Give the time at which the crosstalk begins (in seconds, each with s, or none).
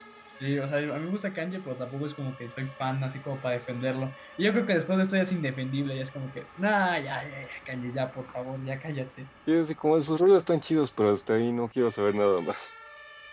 none